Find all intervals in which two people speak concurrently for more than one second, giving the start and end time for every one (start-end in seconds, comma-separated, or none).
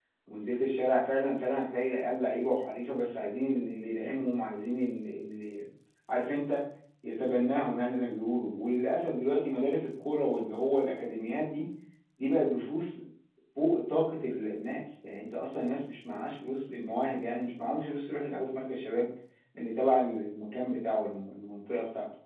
none